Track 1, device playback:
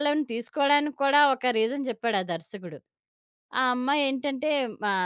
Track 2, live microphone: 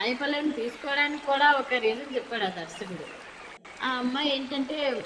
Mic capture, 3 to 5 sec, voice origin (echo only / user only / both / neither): echo only